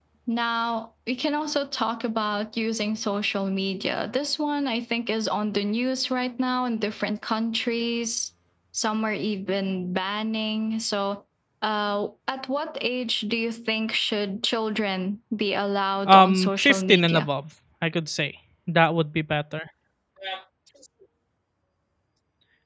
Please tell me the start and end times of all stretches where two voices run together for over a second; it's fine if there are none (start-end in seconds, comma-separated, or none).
16.1-17.3